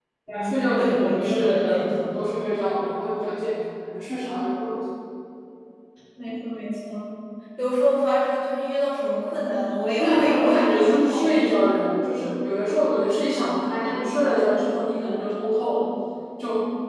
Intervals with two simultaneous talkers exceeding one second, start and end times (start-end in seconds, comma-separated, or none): 0.8-2.0, 10.0-11.6